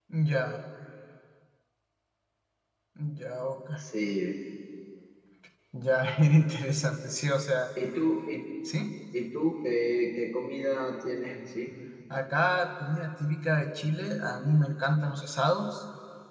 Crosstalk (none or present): none